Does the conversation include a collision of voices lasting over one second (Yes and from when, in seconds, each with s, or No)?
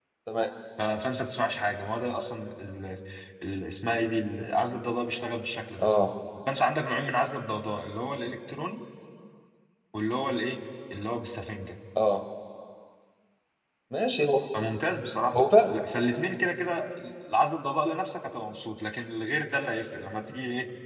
No